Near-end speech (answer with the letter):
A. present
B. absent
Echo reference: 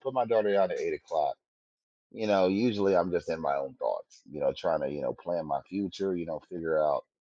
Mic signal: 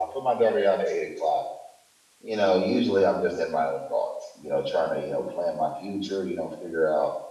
B